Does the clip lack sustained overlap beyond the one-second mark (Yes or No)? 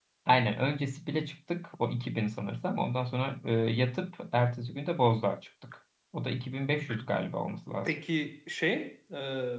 Yes